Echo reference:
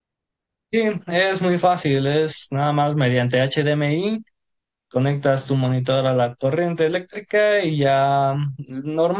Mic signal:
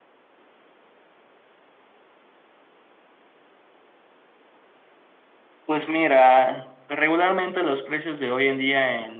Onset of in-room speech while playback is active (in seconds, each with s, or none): 5.7 s